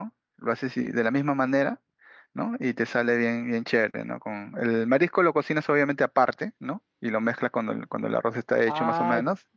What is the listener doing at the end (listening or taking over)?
taking over